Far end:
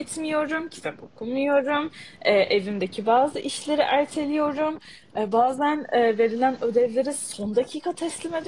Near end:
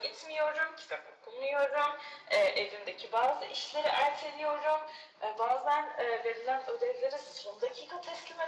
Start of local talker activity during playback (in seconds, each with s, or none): none